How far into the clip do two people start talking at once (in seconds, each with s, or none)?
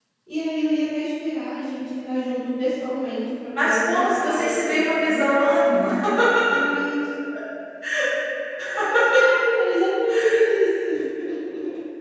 3.6 s